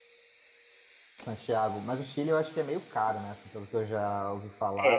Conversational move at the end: taking over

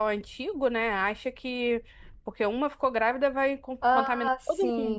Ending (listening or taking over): taking over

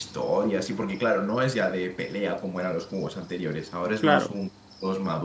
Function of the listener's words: listening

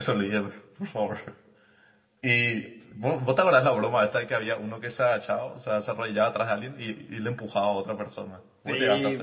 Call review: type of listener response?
taking over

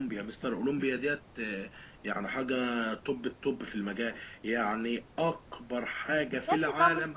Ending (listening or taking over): taking over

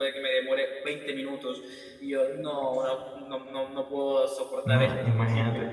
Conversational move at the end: taking over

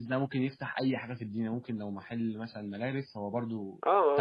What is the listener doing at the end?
taking over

